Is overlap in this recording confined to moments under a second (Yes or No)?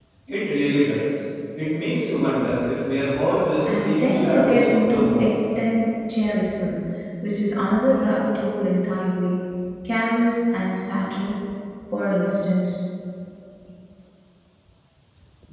No